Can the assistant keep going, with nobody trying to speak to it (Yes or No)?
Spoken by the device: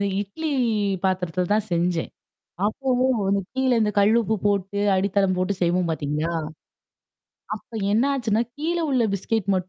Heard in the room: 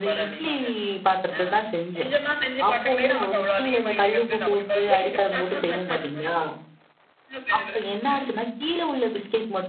No